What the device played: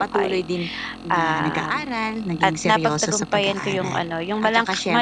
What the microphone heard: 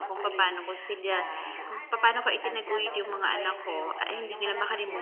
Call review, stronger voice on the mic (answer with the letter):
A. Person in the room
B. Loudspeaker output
A